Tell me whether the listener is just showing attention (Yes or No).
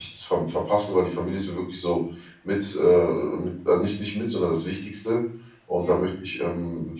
Yes